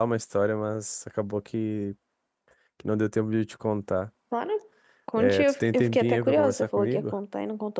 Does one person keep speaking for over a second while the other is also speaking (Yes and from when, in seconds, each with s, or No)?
Yes, from 5.2 s